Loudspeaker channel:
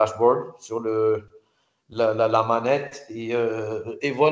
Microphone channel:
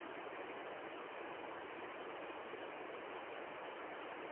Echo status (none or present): none